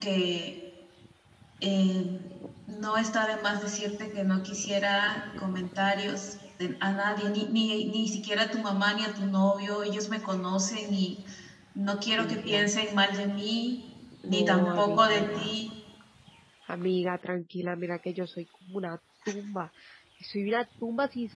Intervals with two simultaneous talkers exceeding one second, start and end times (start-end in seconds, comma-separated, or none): 14.3-15.6